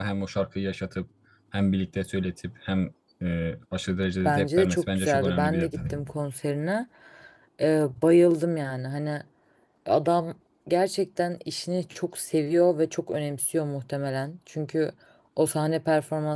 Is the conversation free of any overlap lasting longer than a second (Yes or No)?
No